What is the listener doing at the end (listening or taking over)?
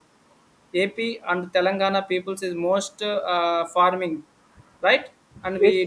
taking over